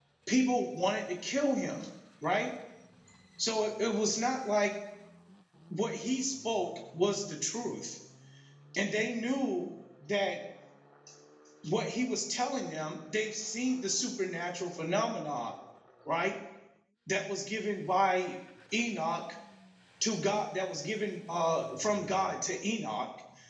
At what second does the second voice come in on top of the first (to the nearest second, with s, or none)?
none